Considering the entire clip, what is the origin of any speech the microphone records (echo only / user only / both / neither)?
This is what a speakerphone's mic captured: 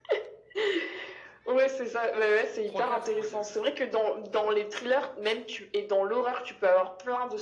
both